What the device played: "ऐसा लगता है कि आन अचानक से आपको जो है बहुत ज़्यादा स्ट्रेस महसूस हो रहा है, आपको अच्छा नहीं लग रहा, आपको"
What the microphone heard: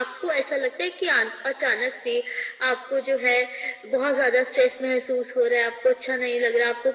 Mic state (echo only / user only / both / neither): echo only